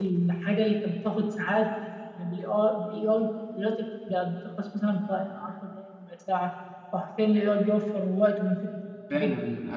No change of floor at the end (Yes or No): No